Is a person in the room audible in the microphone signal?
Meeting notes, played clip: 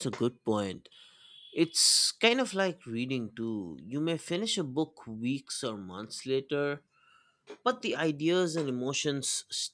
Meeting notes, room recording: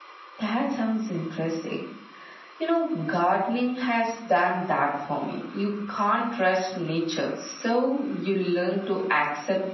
Yes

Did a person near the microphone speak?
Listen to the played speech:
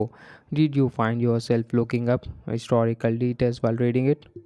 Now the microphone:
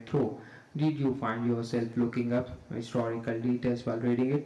No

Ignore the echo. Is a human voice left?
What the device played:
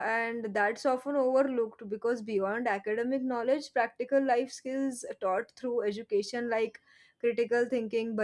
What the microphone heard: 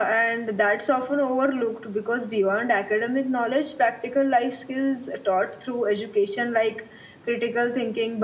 No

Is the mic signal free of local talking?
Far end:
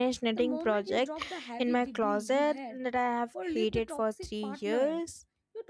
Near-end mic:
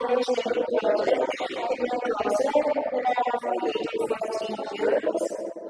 Yes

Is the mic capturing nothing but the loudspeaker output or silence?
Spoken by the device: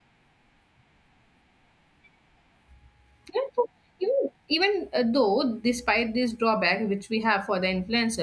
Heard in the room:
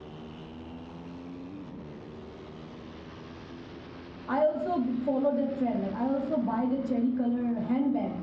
No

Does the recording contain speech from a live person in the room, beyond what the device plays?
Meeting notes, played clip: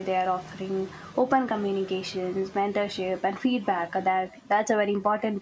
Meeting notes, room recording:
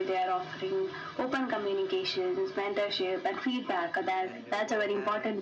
Yes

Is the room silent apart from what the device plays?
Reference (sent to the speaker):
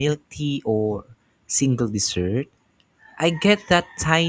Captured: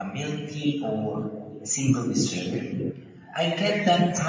Yes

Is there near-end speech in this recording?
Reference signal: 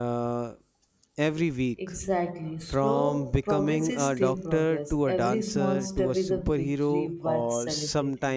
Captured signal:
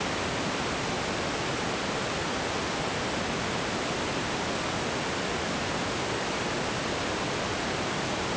No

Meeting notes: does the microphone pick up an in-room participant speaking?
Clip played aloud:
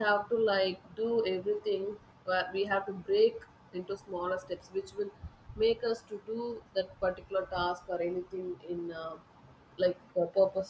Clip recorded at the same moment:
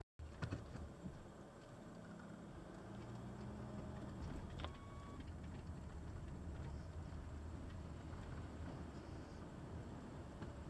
No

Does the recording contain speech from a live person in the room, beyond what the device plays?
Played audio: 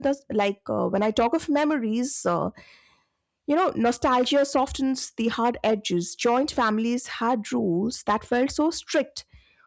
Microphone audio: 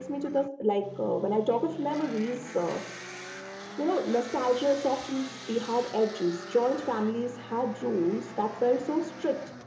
No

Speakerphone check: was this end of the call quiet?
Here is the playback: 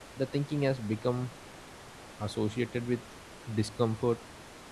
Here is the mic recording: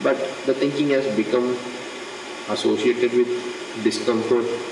Yes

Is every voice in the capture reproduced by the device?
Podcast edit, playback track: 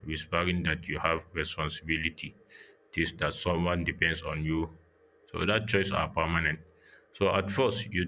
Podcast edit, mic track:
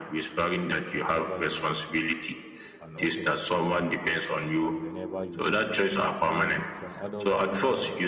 No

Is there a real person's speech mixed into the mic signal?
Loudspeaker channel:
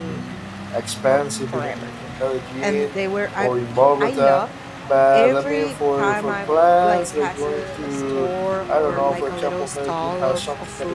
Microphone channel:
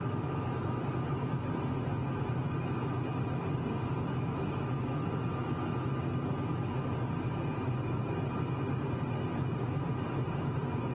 No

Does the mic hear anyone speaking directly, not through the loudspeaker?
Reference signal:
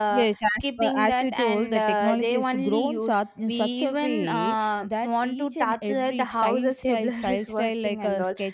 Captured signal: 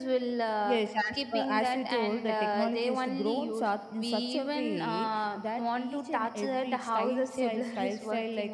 No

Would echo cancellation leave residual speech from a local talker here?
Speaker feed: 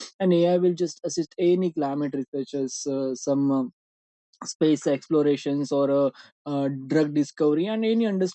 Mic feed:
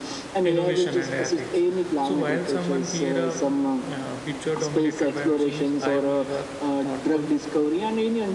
Yes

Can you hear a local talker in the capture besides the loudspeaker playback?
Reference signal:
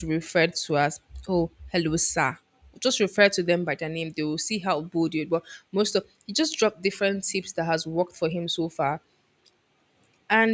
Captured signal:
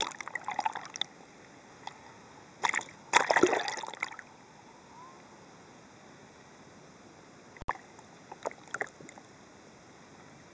No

